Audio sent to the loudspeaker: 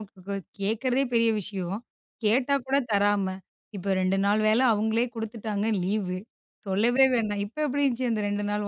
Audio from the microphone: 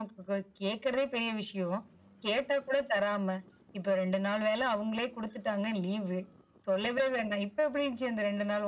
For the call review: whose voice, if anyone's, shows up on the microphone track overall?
echo only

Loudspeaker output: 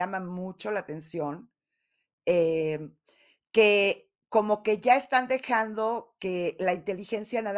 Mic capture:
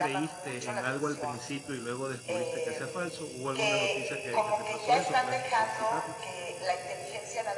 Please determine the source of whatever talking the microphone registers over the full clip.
both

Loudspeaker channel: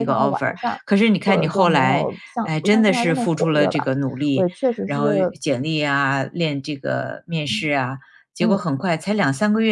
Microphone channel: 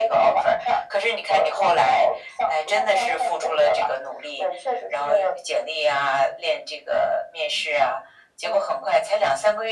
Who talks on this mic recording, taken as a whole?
echo only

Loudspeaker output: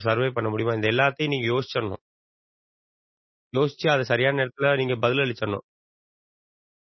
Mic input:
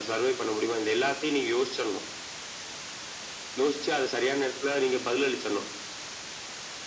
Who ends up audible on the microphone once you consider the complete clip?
echo only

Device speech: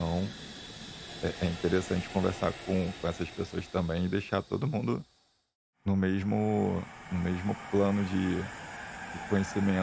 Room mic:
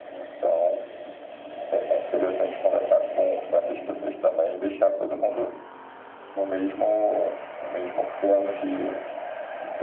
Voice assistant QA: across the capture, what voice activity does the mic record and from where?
echo only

